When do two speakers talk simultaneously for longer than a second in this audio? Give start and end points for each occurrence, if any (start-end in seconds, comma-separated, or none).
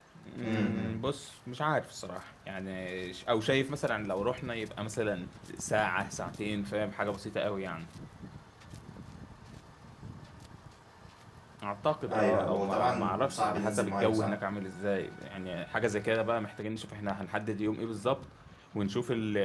12.1-14.3